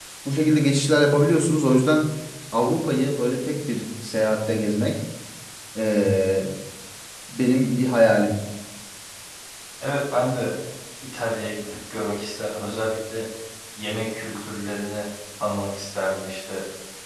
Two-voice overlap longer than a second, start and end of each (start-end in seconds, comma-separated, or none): none